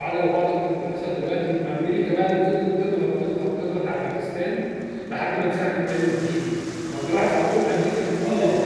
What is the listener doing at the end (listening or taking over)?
taking over